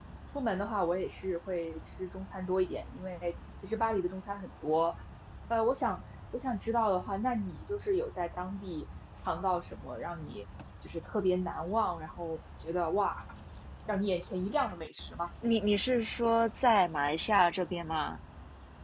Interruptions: none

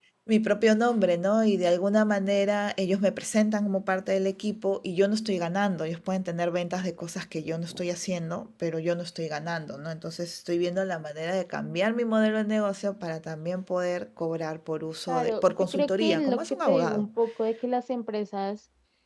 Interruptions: present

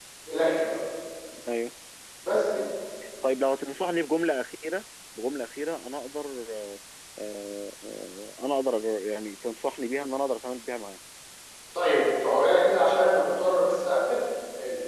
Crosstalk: none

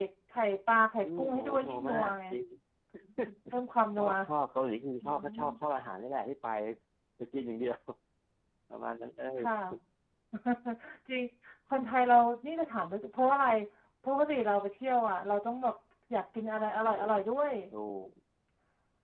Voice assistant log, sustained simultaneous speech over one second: present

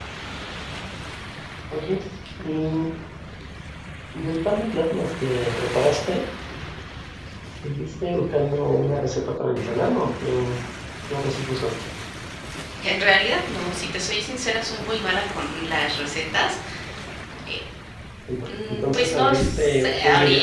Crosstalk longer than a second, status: present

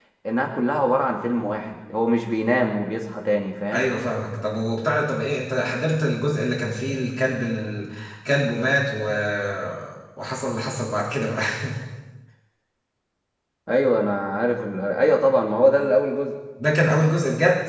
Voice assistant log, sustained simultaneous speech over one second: none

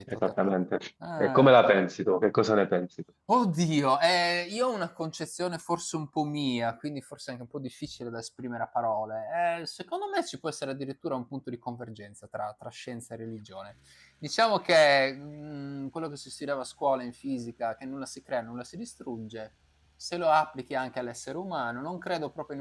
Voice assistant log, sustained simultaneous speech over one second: none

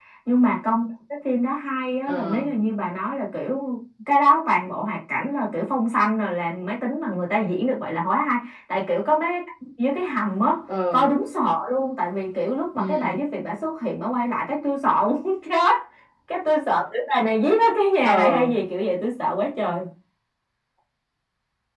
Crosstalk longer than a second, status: none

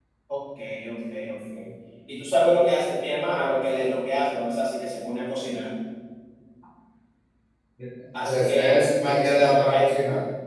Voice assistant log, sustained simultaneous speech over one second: present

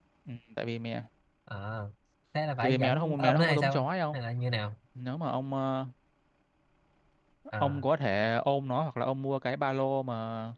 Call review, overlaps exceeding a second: present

